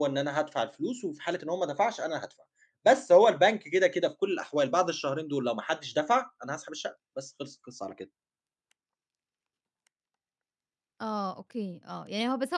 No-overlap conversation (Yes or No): Yes